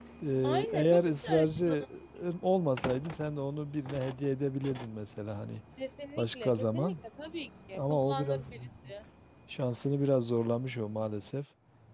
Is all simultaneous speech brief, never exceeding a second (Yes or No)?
No